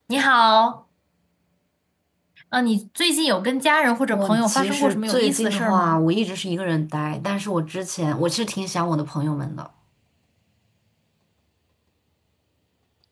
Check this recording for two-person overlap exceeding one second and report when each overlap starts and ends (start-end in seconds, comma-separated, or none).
4.1-6.0